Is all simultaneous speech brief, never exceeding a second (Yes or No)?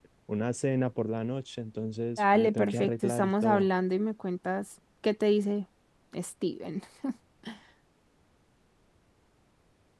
No